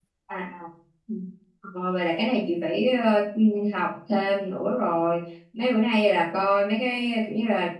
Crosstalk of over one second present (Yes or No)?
No